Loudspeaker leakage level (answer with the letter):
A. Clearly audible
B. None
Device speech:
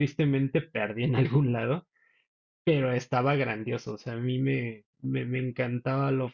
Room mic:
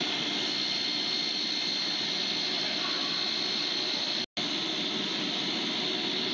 B